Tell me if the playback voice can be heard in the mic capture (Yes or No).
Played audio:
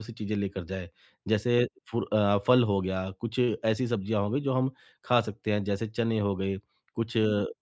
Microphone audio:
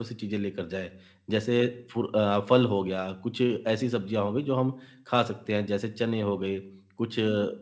Yes